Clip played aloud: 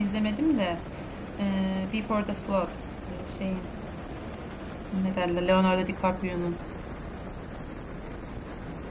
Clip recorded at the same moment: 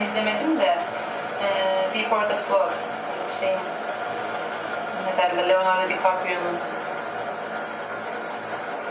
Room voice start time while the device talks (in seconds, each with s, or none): none